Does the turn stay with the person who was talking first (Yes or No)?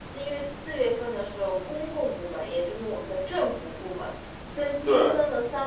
Yes